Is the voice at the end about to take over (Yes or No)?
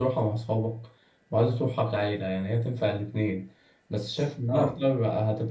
No